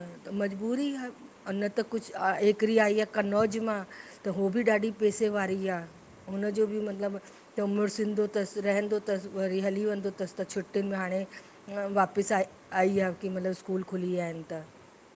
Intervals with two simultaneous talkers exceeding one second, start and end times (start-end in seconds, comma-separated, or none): none